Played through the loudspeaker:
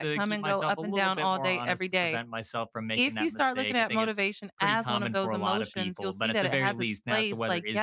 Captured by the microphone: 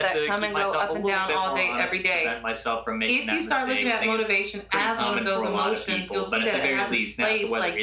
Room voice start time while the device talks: none

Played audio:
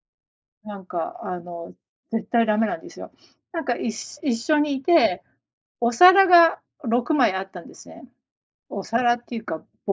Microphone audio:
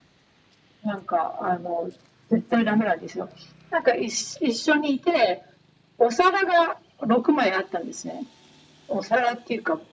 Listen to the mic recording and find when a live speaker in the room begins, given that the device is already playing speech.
none

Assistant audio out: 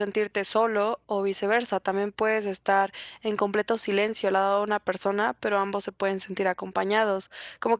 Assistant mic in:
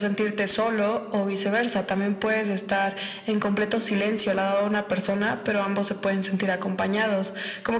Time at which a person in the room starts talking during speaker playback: none

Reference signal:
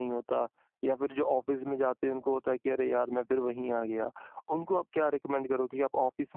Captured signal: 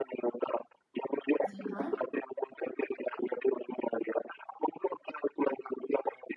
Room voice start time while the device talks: 2 s

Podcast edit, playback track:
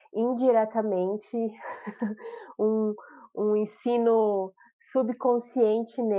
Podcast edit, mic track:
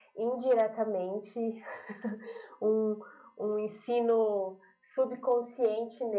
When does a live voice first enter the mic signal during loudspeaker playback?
none

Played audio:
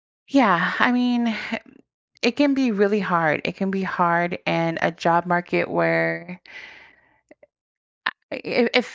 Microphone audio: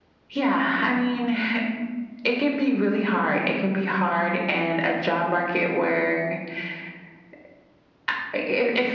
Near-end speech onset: none

